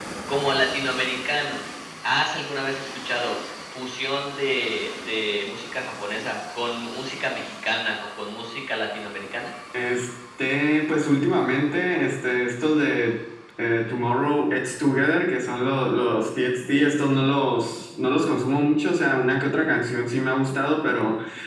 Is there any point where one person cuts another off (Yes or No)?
No